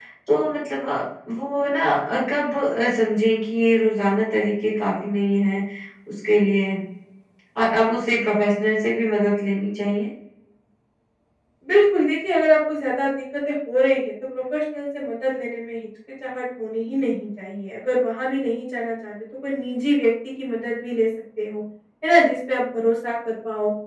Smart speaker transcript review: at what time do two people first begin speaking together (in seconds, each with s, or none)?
none